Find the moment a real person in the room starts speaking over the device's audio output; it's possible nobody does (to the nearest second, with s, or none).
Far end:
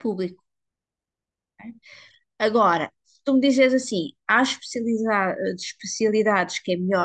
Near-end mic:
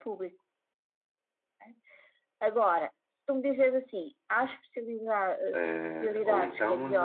6 s